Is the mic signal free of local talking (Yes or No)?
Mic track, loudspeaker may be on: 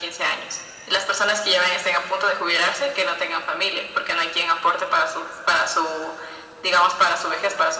Yes